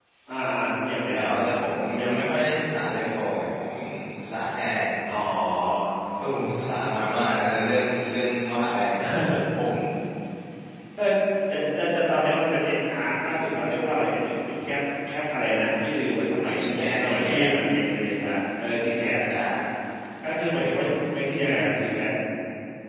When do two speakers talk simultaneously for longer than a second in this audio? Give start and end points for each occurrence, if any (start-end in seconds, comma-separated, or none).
none